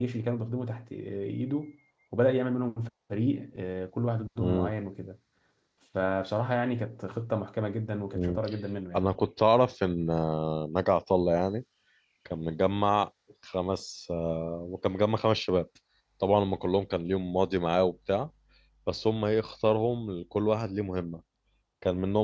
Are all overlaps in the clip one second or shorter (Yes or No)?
Yes